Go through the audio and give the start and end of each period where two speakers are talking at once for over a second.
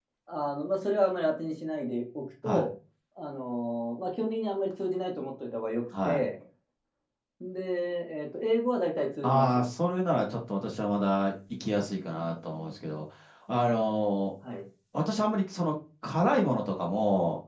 none

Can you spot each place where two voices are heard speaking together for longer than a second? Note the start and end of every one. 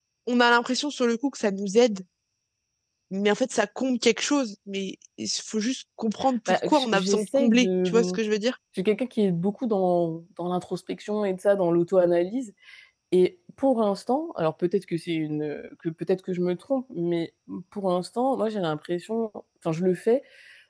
6.5-7.9

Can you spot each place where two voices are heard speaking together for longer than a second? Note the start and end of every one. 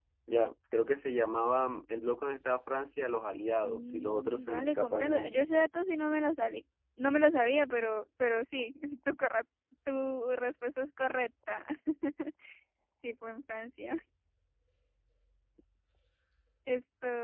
3.6-5.4

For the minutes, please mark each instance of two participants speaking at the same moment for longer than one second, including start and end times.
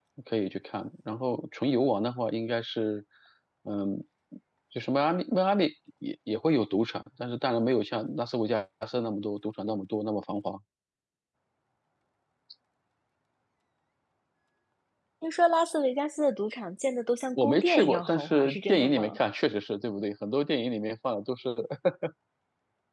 17.4-19.2

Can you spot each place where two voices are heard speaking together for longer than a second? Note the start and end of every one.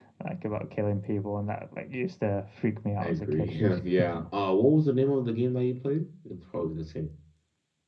none

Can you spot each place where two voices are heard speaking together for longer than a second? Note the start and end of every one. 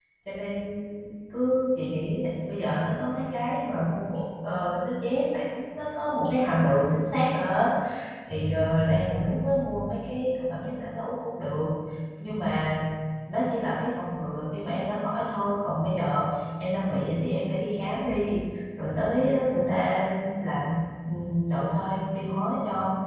none

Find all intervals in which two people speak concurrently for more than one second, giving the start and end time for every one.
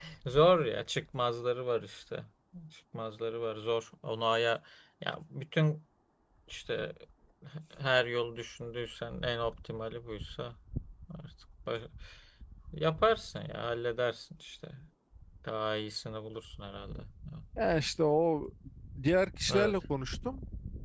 none

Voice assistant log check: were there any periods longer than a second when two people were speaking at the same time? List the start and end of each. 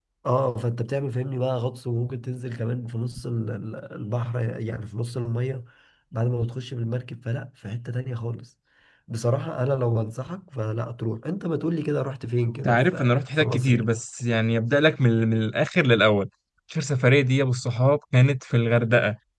12.6-13.9

